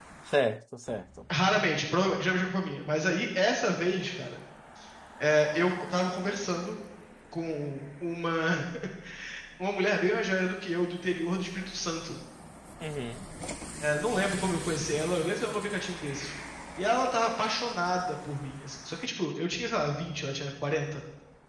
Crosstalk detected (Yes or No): No